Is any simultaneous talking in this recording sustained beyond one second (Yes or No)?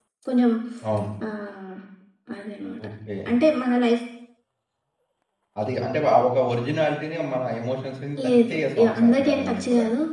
Yes